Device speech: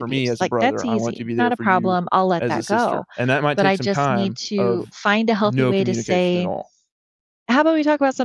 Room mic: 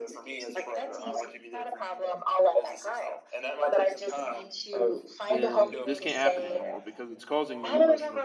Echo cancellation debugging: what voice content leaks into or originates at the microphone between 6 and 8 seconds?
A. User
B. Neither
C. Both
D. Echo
C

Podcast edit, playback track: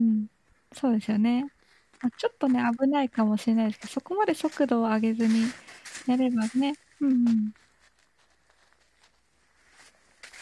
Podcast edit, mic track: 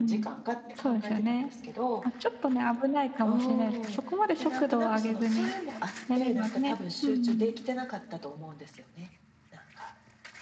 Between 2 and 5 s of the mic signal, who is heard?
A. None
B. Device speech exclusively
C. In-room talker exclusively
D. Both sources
D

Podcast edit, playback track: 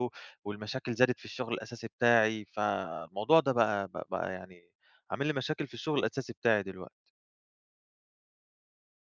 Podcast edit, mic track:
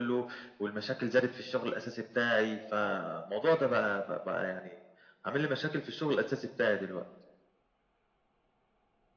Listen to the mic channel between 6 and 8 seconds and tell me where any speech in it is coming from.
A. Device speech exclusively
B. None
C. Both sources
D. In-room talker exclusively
A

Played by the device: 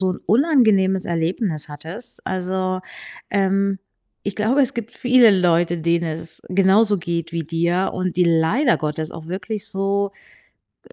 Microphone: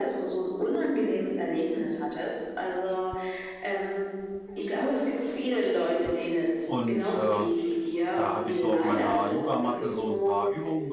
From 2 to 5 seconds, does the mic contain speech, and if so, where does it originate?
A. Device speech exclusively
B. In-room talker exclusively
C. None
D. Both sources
A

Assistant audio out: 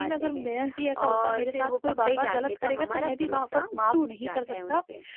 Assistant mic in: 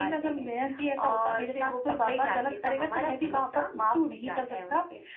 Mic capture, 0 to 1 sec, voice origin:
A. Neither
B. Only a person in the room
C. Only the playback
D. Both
C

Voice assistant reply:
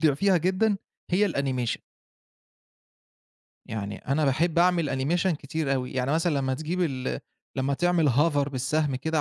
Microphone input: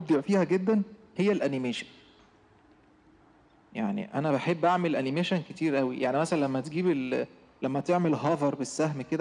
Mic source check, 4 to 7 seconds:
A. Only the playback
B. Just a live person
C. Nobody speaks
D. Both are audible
A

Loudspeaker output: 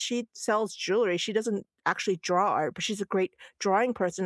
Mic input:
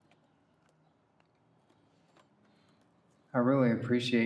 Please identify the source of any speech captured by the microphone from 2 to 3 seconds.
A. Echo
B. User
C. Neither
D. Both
C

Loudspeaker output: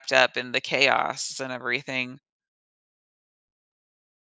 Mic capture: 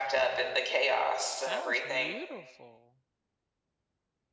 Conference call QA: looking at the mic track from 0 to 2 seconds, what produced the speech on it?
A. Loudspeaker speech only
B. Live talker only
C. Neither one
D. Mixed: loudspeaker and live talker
D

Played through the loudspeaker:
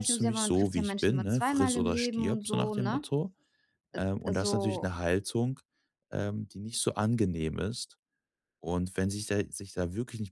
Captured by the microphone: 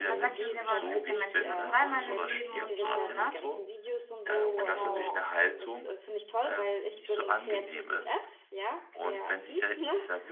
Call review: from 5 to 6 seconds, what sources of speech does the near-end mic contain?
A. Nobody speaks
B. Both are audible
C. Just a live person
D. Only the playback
B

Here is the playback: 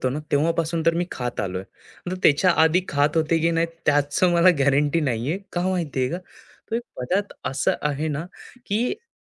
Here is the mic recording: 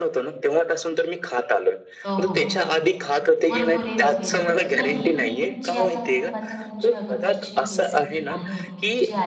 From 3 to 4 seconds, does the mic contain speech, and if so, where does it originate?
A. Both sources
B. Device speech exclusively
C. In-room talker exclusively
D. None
A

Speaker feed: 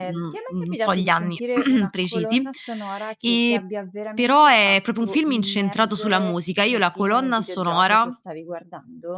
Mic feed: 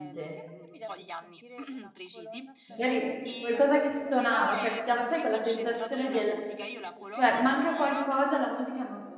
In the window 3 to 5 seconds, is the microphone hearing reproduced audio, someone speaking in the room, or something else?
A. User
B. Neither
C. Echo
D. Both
D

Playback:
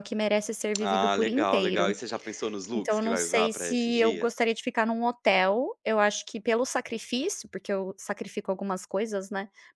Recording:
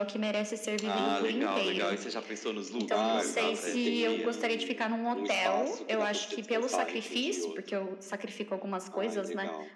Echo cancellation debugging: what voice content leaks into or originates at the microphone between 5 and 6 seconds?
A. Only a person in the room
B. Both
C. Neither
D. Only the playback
B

